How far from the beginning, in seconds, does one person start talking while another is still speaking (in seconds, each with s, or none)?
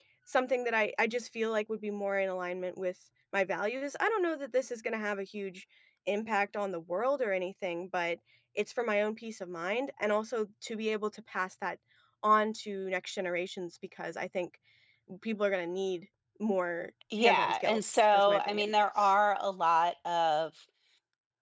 17.1 s